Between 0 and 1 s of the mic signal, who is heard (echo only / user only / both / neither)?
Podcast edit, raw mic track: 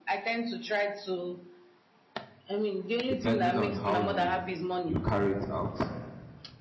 echo only